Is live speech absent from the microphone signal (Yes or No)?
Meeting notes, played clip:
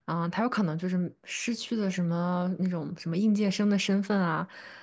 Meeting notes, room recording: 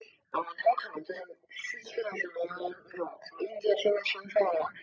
Yes